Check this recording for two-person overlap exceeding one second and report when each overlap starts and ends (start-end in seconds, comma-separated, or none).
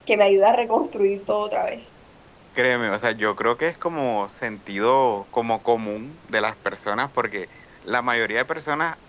none